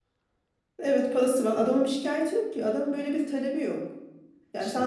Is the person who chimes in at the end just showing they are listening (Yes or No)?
Yes